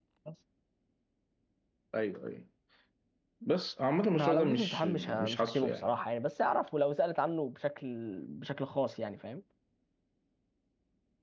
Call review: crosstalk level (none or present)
present